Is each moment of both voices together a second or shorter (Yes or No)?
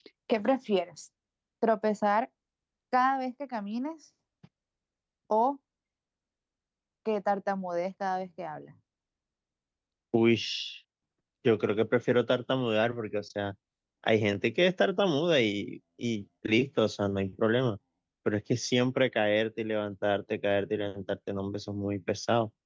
Yes